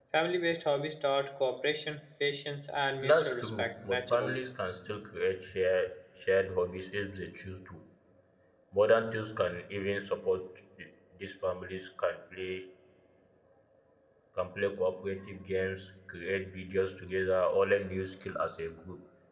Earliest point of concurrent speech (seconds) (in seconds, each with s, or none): 3.0 s